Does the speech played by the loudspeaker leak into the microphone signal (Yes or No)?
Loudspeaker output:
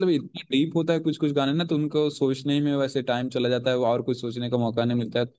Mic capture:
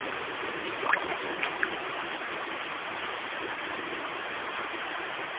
No